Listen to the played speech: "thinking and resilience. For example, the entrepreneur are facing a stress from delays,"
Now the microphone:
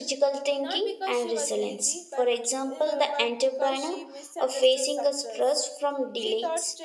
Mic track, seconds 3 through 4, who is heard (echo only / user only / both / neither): both